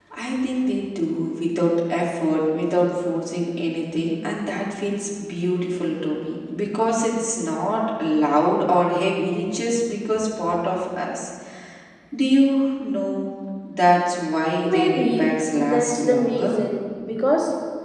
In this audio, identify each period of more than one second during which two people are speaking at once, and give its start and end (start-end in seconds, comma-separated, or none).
14.6-16.6